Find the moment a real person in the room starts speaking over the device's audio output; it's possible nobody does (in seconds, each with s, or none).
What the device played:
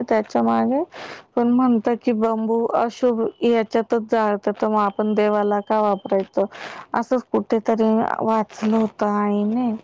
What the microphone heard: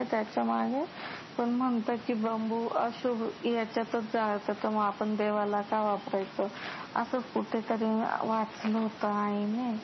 none